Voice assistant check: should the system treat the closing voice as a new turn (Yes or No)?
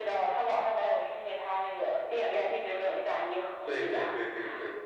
Yes